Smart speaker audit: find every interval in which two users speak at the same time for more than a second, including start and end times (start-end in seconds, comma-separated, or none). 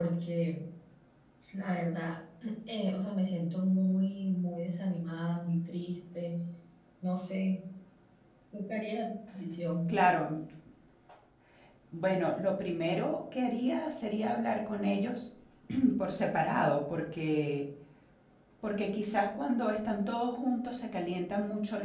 none